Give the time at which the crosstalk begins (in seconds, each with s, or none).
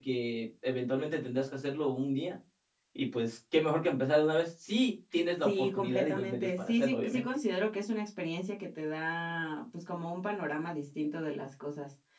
5.4 s